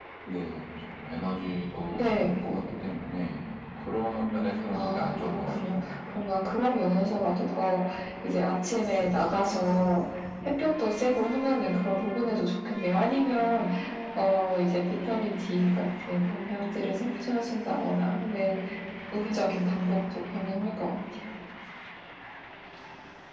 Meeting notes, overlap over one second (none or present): present